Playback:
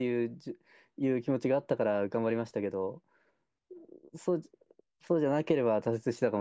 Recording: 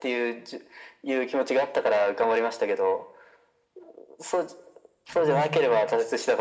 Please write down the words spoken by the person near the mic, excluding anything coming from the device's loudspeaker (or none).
うん。